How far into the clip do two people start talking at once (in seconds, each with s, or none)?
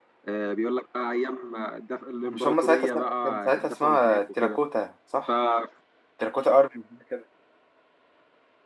2.3 s